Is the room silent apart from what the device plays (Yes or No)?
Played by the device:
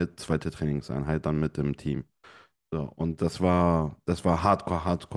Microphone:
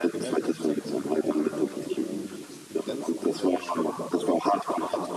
No